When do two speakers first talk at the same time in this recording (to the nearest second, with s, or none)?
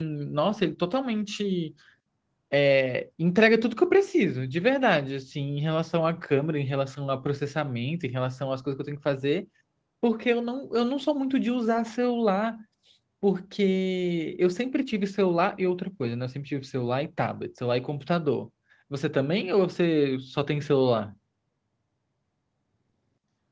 none